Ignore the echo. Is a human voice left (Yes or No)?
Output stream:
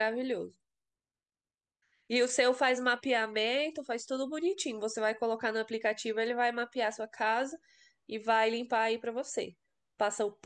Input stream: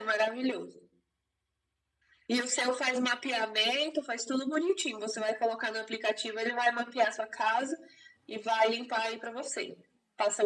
No